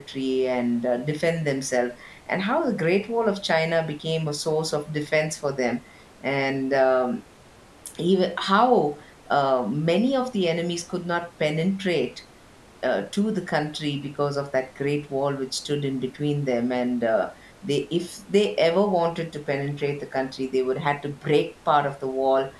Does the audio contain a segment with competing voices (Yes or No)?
No